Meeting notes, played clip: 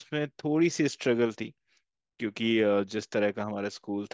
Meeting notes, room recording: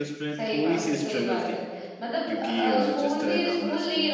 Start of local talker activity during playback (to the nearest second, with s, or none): 0 s